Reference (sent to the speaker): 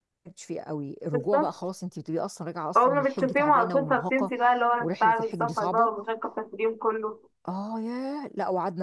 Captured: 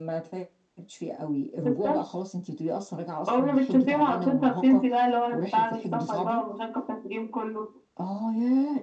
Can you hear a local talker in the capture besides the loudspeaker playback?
No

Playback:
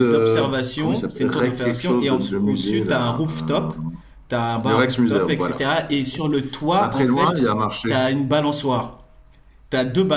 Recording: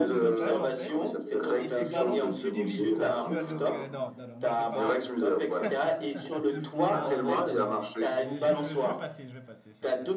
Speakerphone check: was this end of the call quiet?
No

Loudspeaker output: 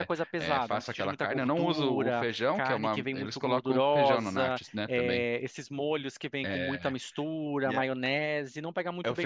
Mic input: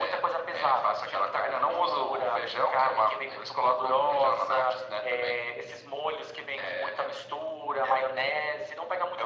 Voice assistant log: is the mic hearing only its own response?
Yes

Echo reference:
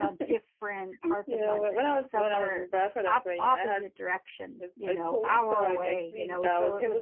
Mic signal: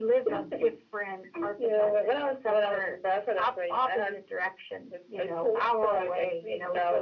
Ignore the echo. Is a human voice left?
No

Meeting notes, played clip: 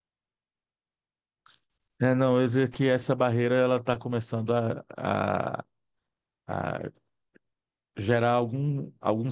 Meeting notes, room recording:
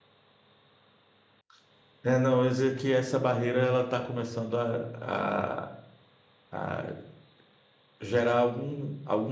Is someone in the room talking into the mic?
No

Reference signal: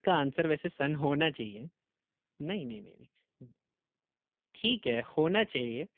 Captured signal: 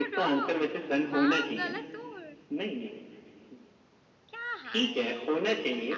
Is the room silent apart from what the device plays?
No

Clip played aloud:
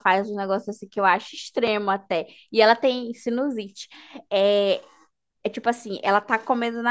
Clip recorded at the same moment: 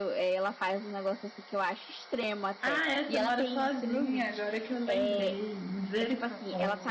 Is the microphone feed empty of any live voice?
No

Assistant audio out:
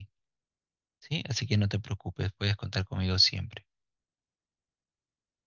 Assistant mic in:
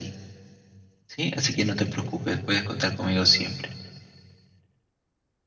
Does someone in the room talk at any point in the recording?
No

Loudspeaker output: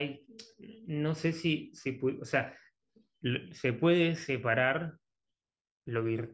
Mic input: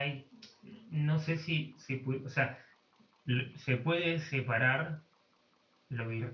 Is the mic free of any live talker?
Yes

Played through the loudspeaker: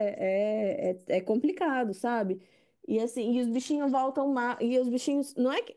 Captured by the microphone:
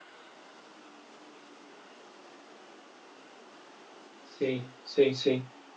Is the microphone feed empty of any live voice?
No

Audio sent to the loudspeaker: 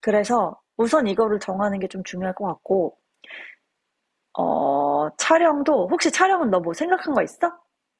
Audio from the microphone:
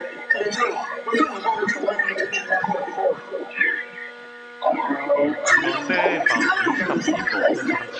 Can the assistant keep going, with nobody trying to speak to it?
No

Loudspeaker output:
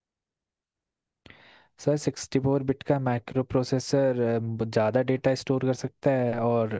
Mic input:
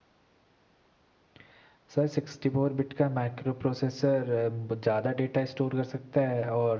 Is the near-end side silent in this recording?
Yes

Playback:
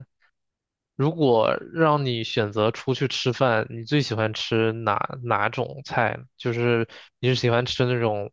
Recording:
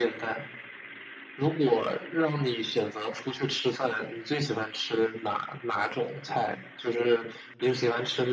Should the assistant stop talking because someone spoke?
No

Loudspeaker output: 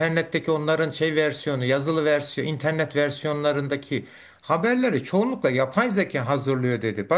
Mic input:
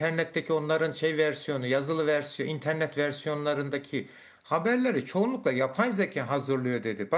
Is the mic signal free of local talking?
Yes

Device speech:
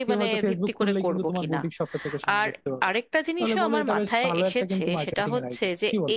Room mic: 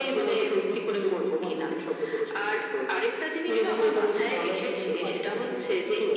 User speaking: No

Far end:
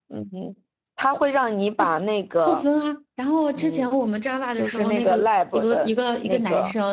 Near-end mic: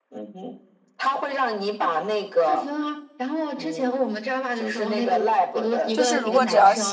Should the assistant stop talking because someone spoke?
Yes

